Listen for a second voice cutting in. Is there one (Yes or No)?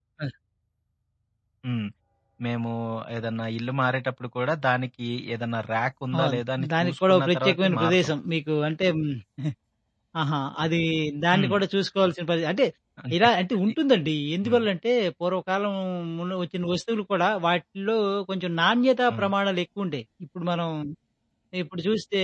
Yes